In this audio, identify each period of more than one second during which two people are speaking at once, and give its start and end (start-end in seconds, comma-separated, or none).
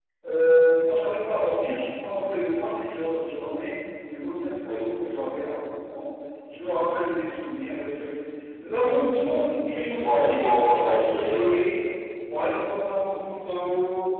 10.0-11.5